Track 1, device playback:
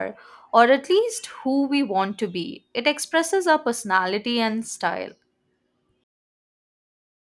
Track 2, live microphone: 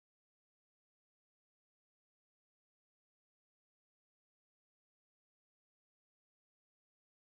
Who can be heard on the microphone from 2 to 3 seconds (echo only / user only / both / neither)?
neither